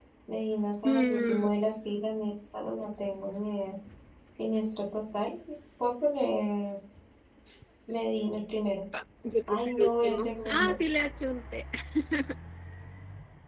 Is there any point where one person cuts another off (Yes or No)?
Yes